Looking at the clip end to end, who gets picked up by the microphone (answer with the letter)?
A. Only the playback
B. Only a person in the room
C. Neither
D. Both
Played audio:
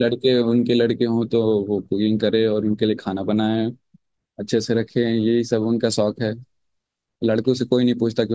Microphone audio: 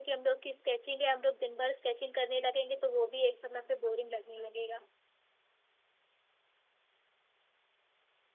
B